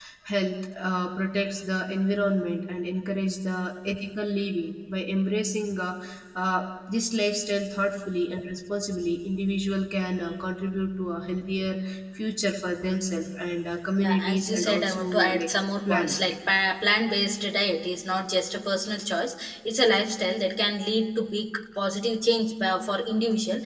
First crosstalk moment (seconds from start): 14.0 s

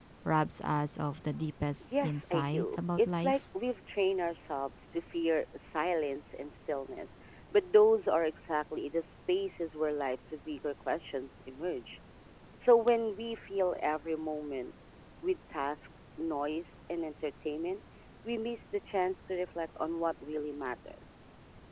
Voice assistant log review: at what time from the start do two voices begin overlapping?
1.8 s

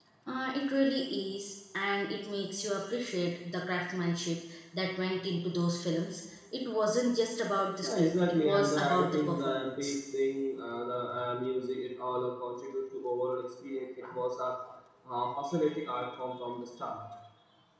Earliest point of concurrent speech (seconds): 7.8 s

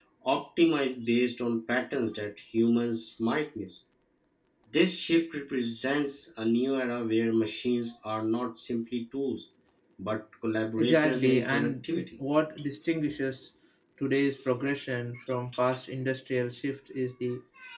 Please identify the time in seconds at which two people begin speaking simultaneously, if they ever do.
10.8 s

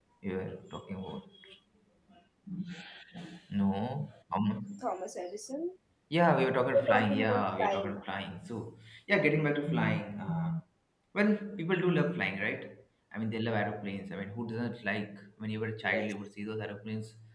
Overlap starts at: 6.7 s

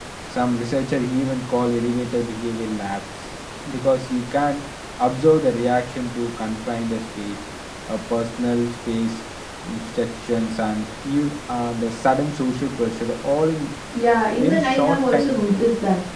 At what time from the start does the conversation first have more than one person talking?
14.4 s

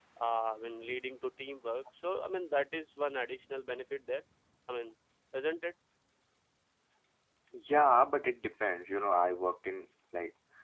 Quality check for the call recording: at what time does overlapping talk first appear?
none

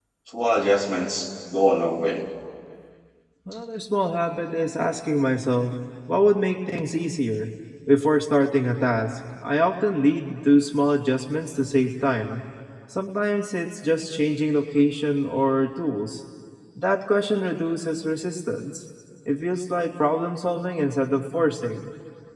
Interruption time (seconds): none

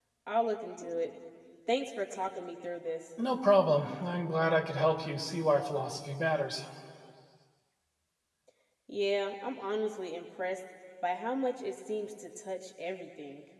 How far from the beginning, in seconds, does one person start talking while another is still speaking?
none

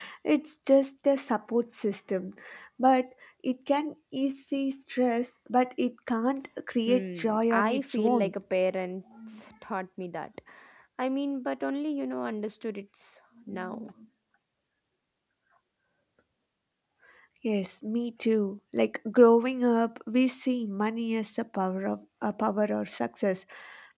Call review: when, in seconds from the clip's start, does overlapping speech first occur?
6.9 s

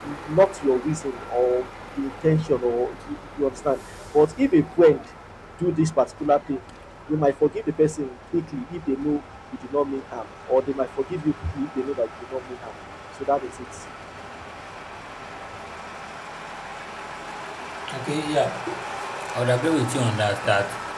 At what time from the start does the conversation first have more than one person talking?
none

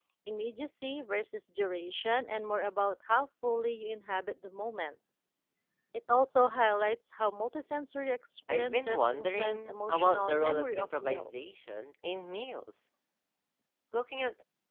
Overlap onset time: 8.5 s

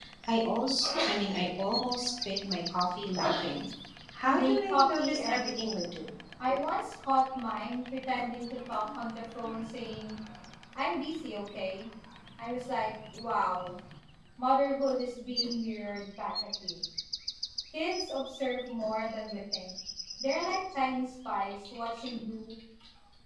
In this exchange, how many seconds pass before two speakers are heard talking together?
4.3 s

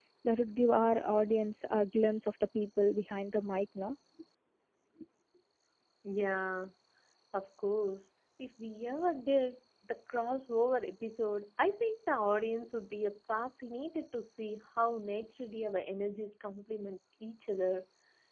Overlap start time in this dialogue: none

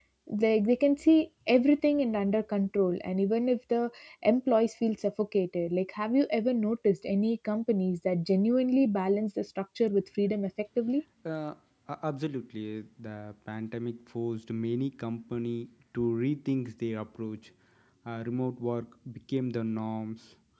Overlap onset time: none

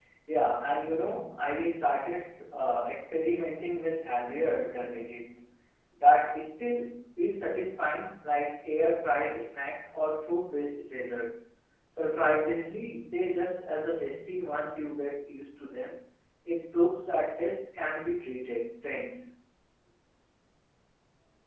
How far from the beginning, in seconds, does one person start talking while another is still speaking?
none

